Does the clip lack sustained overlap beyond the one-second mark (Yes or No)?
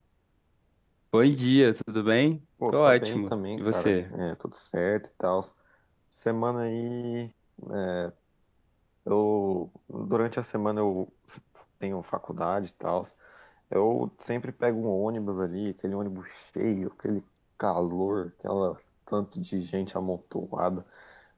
No